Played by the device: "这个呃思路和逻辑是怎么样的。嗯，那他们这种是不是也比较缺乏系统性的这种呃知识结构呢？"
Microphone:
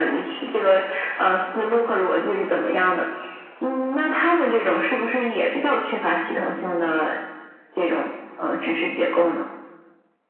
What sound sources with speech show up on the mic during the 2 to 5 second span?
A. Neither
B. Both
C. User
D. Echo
D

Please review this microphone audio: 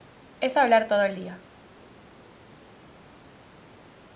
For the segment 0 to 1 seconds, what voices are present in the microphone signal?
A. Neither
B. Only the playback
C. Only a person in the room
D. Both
C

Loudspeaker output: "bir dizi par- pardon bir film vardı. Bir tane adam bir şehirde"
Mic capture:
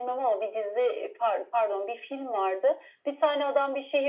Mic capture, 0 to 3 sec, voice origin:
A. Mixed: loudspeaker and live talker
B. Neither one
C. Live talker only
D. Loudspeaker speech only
D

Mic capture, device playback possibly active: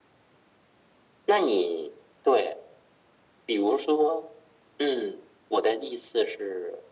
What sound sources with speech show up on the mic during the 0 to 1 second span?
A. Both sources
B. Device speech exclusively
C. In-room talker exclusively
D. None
D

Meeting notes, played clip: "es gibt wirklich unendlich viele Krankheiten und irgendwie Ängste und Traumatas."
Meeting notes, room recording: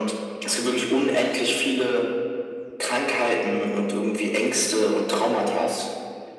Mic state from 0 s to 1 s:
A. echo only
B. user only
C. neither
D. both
A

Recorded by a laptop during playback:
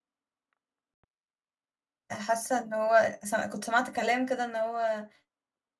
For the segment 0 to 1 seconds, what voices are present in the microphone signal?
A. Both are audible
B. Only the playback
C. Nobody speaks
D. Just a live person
C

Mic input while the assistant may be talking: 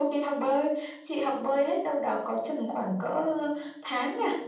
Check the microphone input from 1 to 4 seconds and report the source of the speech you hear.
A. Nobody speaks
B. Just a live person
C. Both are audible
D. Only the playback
D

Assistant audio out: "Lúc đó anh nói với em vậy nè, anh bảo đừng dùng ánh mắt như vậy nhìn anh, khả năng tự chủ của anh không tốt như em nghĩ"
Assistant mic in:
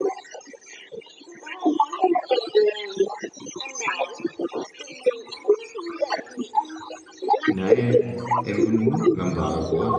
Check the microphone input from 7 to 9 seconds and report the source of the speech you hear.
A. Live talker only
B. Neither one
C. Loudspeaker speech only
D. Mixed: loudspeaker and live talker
D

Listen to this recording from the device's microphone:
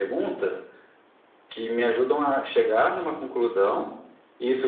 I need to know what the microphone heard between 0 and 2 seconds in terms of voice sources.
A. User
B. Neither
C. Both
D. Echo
D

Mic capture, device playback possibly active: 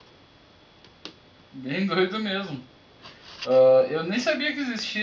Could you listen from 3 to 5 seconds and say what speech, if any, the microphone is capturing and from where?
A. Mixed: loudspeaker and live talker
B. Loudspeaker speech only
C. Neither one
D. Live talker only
D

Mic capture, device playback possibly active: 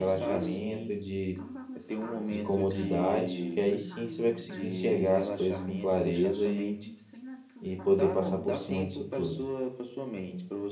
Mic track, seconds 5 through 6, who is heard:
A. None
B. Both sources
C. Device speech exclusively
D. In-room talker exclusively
B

